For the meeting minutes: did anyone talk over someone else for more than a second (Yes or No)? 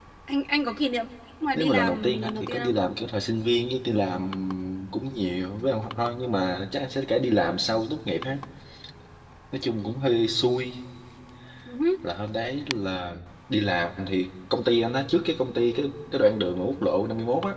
Yes